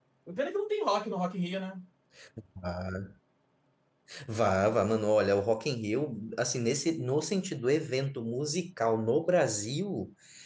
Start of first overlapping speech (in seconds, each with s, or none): none